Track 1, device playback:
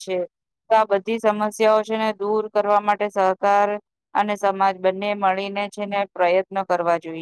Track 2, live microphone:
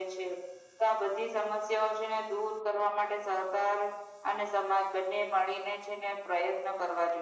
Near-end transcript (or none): none